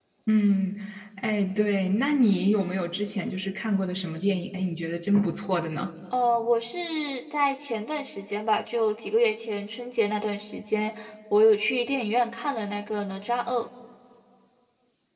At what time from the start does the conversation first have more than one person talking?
none

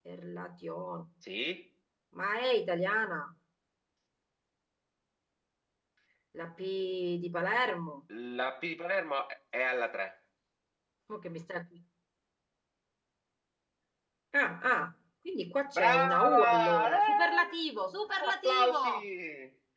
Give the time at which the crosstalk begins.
16 s

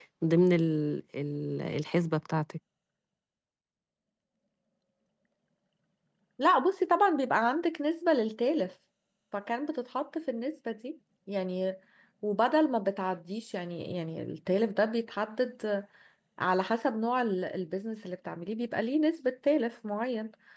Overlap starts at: none

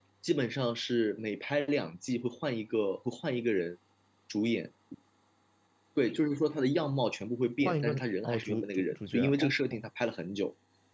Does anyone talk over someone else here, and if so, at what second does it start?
8 s

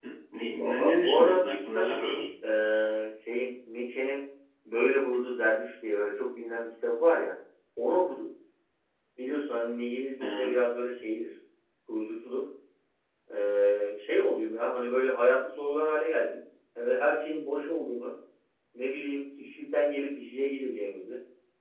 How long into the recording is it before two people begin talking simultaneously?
1 s

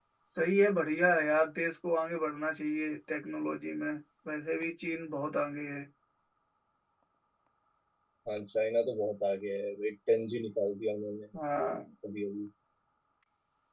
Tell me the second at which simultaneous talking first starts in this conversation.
none

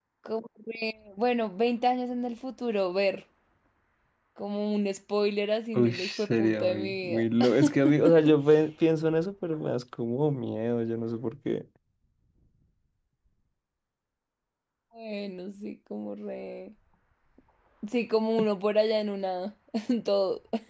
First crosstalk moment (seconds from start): 6 s

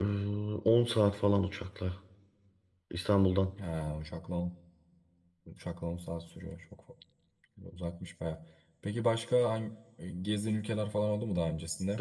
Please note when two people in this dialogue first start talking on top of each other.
none

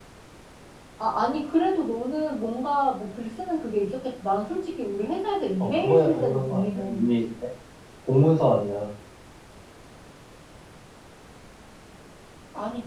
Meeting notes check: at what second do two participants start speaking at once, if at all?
6 s

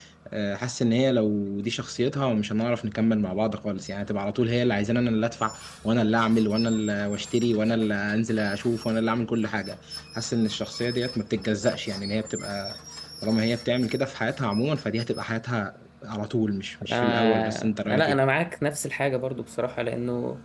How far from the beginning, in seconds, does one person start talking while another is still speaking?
17 s

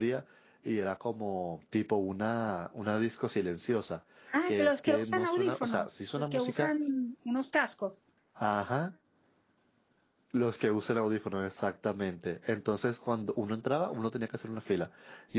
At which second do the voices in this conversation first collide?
4 s

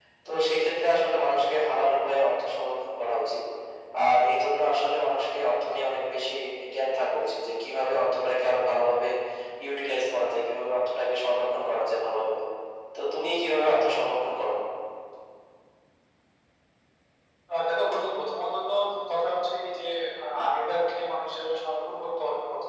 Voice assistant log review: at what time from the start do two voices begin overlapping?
none

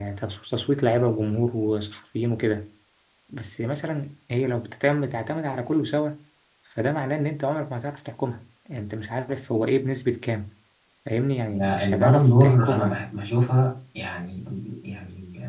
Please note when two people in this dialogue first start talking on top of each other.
12 s

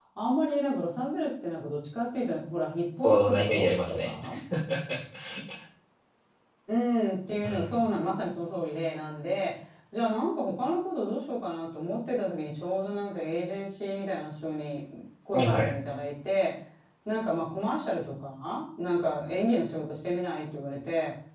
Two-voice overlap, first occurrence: 3 s

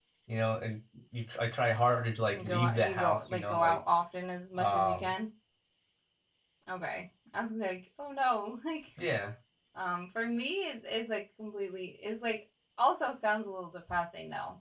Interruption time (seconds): 2 s

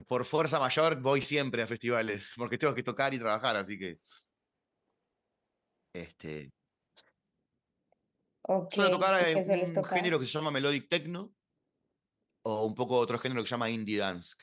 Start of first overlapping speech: 9 s

